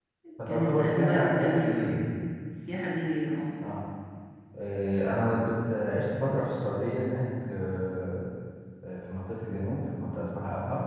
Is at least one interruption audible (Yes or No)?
Yes